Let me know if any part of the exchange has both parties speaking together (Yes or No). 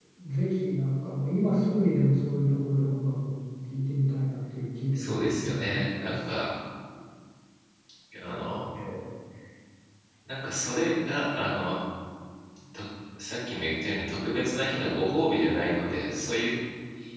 Yes